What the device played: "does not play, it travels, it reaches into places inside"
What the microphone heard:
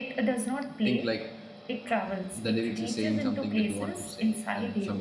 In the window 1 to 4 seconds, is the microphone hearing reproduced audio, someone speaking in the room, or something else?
both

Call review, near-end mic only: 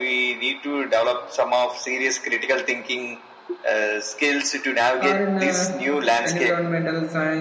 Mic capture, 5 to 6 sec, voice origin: both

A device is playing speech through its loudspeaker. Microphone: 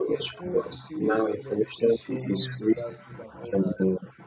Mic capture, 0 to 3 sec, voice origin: both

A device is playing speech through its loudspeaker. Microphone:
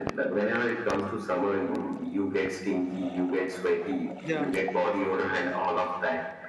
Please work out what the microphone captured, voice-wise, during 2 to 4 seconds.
echo only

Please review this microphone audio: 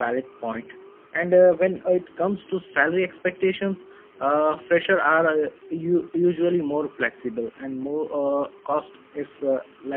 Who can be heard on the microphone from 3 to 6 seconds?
user only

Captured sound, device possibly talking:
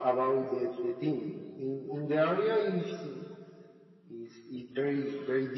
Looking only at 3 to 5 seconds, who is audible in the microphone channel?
echo only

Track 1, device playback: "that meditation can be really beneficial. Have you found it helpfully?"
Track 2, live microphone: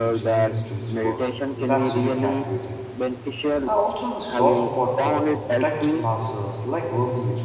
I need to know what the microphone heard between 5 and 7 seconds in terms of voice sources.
both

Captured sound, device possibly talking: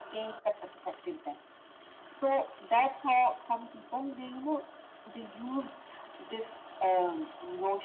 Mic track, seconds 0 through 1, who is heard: echo only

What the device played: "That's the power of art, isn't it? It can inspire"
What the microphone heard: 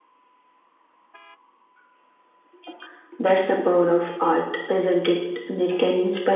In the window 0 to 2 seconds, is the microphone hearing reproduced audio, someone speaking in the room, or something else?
neither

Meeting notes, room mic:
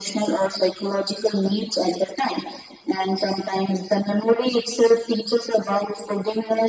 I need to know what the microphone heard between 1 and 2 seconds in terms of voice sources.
echo only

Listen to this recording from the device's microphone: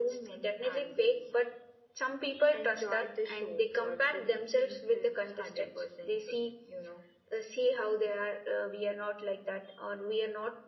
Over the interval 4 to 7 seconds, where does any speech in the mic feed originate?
echo only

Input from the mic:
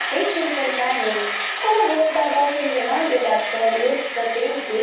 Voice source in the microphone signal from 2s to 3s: echo only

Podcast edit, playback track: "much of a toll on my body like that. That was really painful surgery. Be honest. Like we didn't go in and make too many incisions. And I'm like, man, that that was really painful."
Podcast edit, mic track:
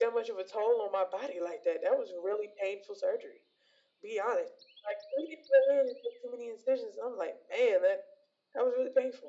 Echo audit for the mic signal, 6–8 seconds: echo only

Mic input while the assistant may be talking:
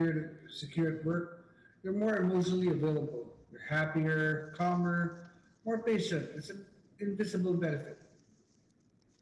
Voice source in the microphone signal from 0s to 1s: user only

